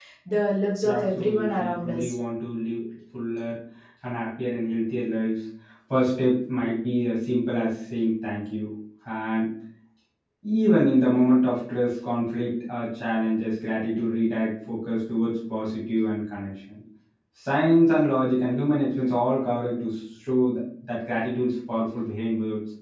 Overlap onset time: 0.8 s

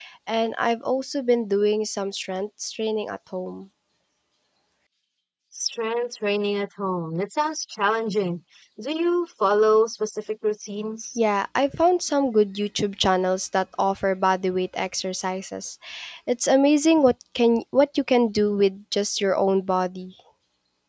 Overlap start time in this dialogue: none

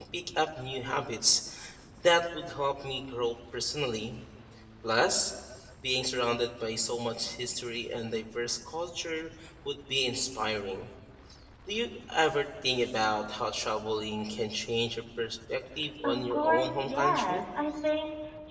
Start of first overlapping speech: 16.0 s

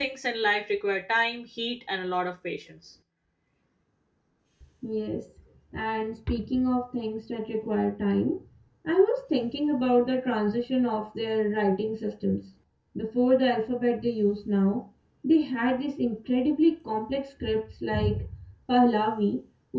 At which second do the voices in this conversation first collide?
none

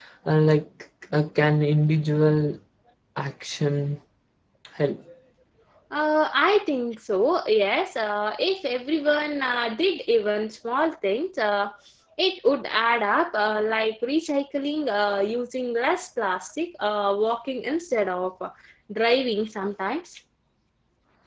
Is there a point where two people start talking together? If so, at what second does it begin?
none

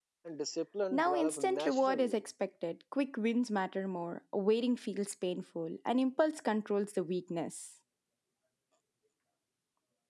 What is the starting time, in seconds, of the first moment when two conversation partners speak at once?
0.9 s

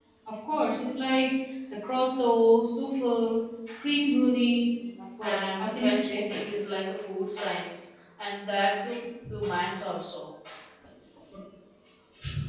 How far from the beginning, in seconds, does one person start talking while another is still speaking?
5.2 s

